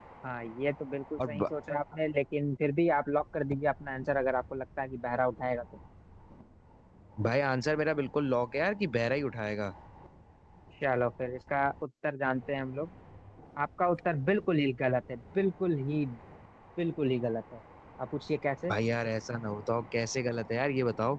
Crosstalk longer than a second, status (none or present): none